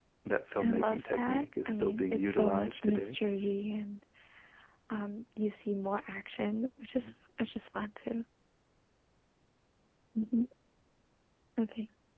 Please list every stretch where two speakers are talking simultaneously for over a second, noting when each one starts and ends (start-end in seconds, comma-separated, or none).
0.6-3.2